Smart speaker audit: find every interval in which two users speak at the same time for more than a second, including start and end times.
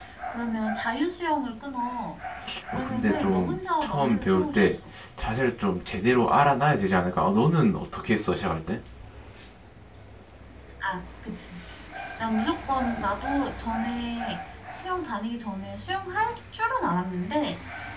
2.7-4.8

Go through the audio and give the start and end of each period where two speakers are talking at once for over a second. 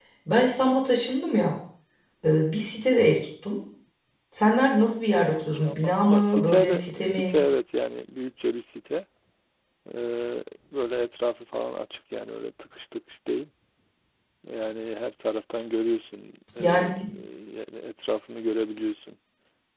5.2-7.3

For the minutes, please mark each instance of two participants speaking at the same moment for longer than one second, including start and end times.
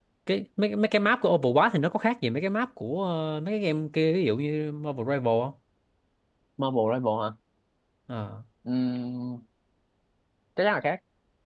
none

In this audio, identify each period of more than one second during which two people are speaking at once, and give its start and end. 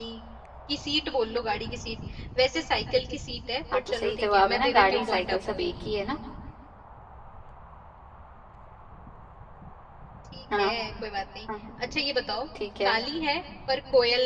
3.7-5.4

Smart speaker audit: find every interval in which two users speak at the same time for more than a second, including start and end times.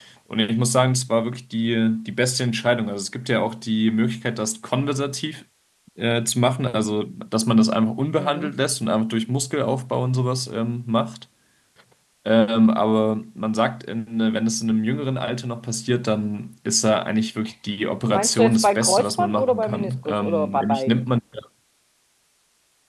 18.1-21.1

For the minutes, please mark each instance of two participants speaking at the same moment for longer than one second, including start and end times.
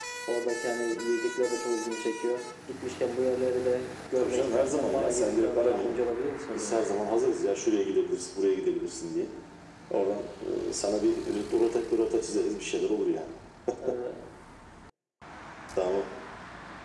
4.2-6.0

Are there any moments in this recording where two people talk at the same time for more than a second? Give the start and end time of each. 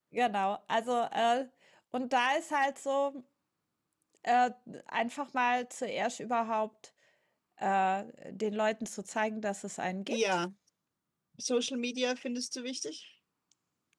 none

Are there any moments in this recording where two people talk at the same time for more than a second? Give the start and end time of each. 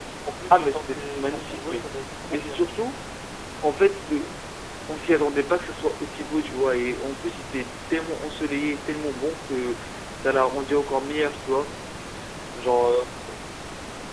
0.5-1.9

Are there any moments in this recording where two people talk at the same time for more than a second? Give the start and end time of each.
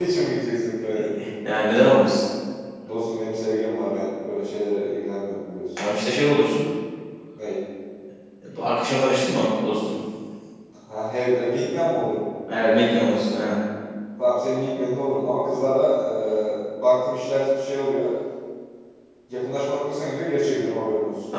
none

